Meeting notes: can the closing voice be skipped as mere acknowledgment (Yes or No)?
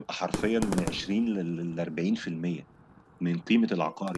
Yes